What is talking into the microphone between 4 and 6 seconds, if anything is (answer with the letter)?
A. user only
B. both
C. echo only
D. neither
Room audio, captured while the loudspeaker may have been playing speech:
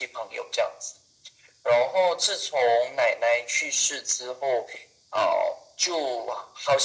C